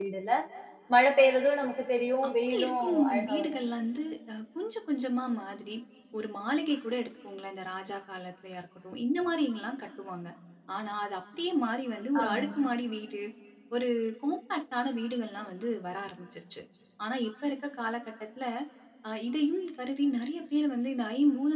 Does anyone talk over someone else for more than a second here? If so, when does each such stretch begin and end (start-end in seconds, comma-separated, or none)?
2.3-3.6